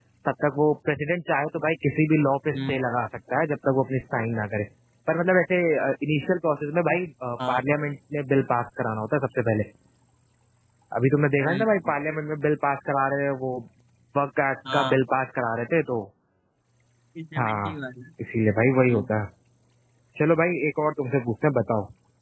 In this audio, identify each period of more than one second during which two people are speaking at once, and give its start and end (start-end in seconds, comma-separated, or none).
none